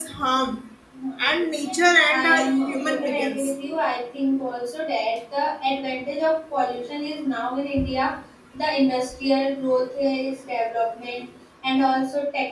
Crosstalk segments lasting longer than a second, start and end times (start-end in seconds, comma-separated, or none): 2.1-3.5